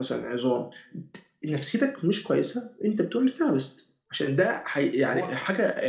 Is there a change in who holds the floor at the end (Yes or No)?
No